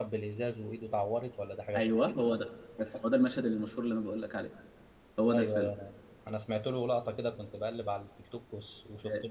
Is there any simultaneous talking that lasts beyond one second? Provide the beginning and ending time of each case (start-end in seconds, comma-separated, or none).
none